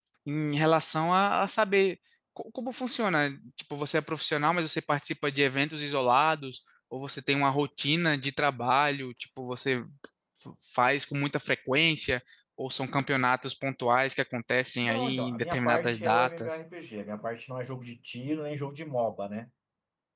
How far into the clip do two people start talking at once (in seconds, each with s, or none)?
14.8 s